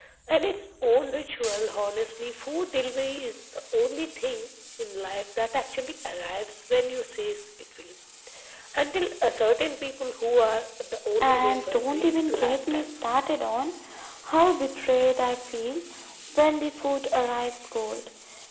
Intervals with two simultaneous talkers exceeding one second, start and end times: 11.2-13.2

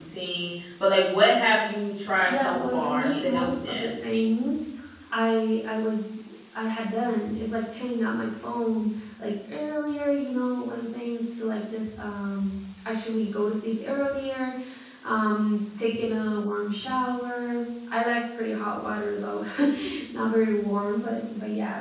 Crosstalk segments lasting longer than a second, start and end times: 2.2-3.9

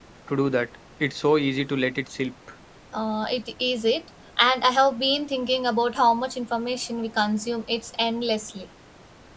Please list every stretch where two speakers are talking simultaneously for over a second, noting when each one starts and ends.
none

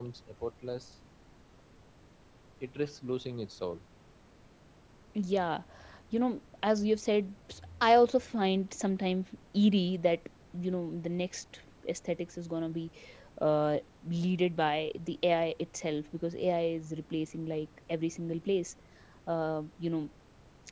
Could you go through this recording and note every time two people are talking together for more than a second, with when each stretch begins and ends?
none

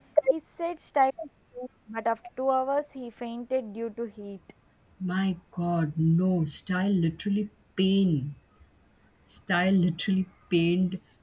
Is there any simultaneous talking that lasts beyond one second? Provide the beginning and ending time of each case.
none

